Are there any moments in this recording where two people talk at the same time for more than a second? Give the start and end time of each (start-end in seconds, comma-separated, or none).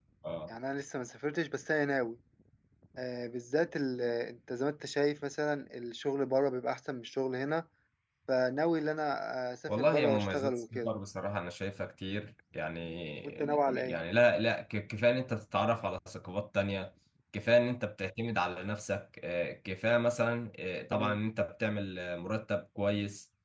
9.7-10.9